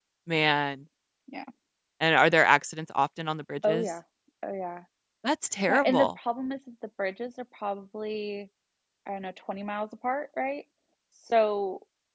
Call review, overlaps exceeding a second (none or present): none